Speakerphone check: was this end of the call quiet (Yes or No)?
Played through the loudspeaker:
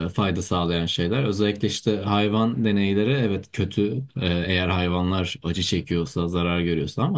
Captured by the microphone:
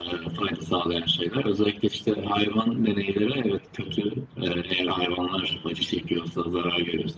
Yes